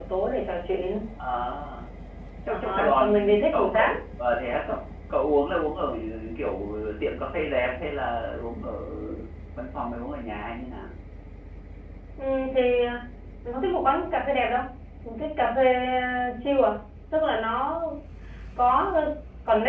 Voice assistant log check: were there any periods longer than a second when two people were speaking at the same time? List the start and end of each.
2.5-3.9

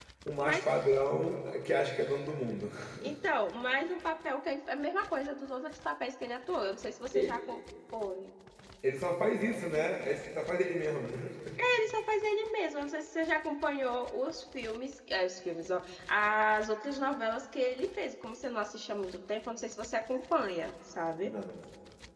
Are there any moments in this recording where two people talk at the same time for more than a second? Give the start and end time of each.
none

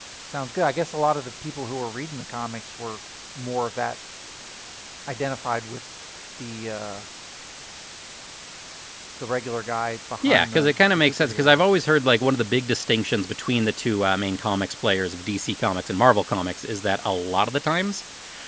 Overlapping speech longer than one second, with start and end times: 10.2-11.6

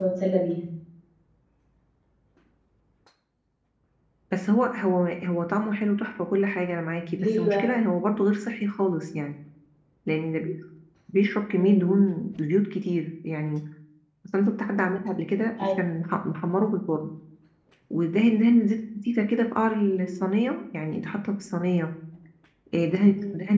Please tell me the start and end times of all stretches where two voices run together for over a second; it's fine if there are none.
none

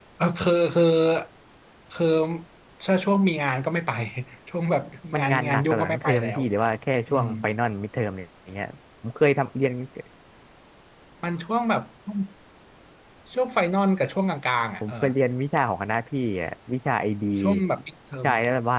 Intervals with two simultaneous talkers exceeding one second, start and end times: 5.2-6.4

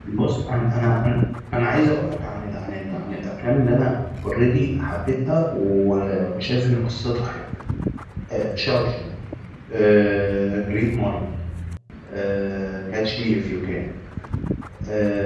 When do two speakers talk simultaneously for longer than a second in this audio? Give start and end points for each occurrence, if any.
none

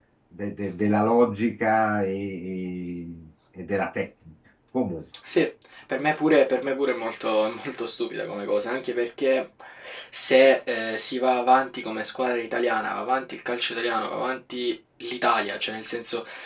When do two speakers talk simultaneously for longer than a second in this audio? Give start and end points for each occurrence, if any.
none

